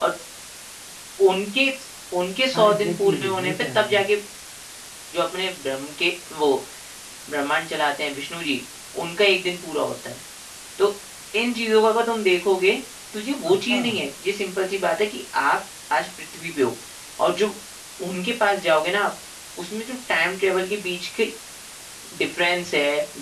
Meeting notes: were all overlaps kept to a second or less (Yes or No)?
No